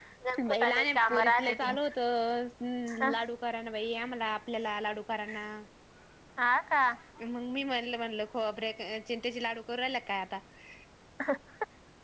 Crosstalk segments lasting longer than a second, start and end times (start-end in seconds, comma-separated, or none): 0.5-1.8